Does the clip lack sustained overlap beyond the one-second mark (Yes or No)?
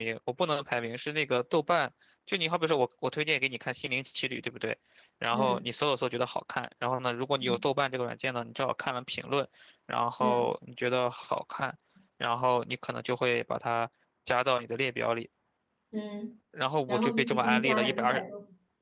No